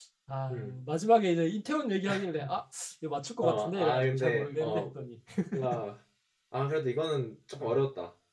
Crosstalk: present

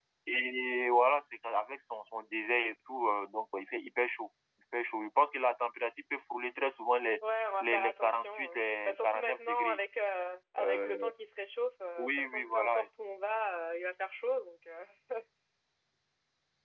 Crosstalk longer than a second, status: present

